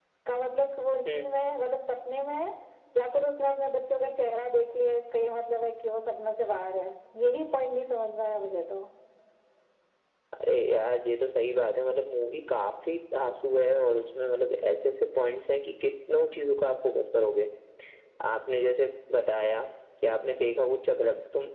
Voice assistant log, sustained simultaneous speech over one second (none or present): none